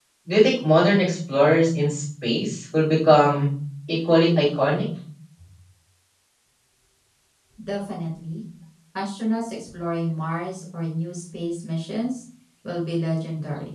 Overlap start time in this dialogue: none

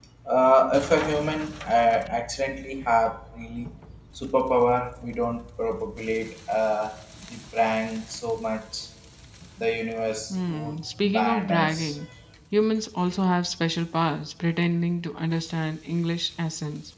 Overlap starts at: 10.3 s

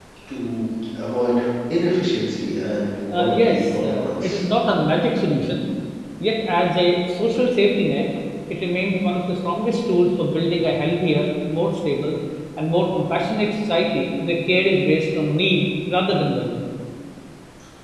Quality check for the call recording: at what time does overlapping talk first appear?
3.1 s

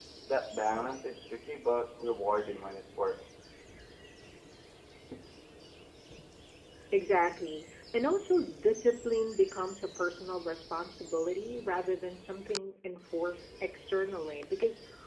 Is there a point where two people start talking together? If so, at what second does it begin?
none

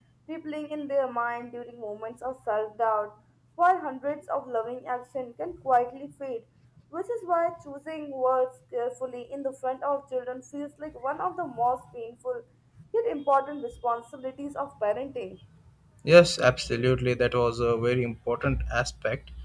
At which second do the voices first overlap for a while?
none

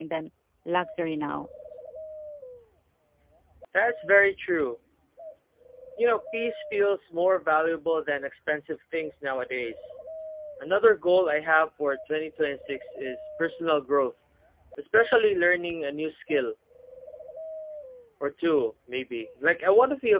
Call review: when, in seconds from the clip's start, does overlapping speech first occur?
none

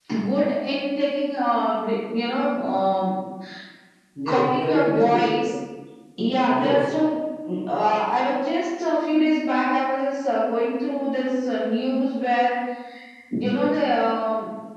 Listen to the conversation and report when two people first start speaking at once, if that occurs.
4.3 s

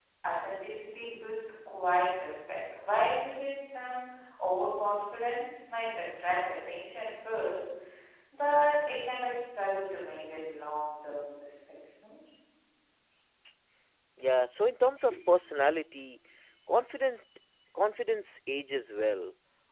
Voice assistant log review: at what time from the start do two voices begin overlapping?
none

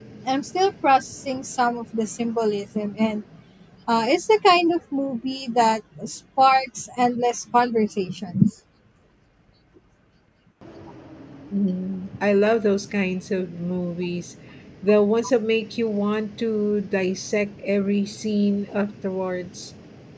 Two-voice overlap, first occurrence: none

